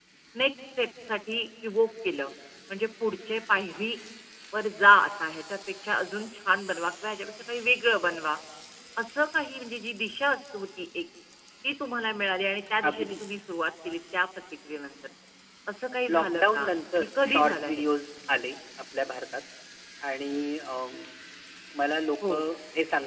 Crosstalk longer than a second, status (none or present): present